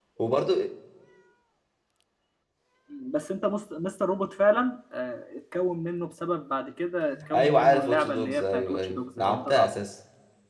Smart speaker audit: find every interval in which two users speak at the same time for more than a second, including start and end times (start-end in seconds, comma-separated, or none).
7.3-9.7